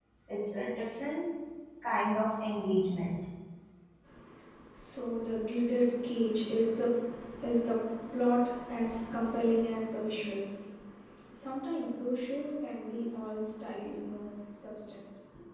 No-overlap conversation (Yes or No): Yes